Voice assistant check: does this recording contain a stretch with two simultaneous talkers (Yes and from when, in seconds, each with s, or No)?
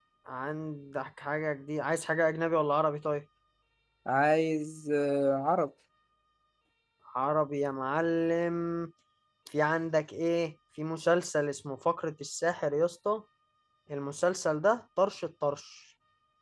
No